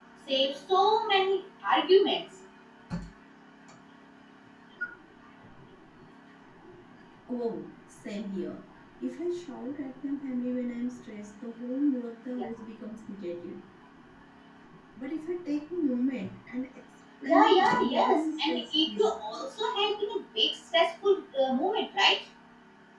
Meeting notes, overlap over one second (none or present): present